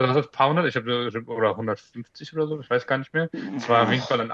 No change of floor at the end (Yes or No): Yes